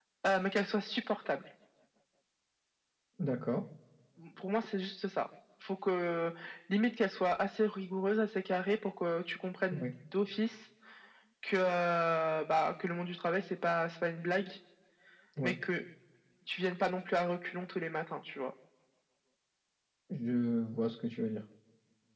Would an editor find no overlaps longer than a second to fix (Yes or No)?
Yes